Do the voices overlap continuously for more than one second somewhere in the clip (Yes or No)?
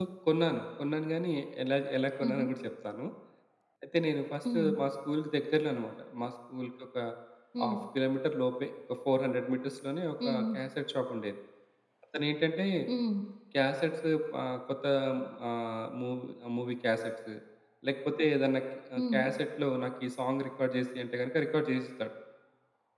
No